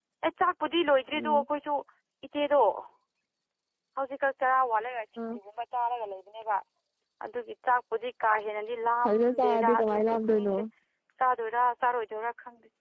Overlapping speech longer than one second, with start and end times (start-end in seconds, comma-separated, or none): 9.1-10.5